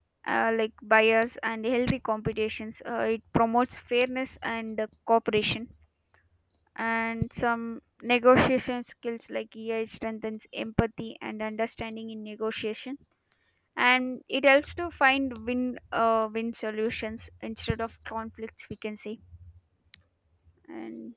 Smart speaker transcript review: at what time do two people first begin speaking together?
none

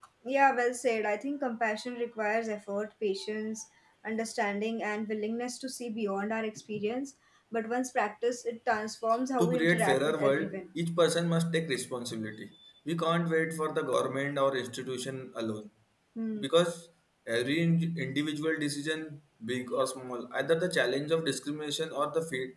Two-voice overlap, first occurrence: 9.4 s

